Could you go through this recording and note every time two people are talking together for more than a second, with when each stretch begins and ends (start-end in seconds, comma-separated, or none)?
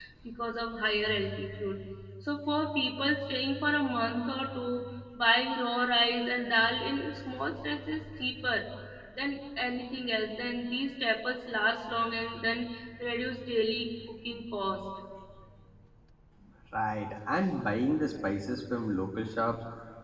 none